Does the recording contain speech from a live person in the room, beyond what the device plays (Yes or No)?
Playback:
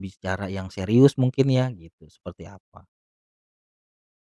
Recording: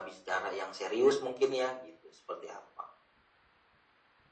No